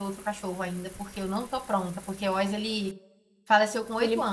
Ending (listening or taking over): listening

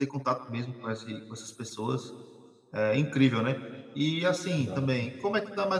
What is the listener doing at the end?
listening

